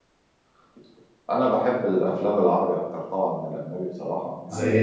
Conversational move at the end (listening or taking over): listening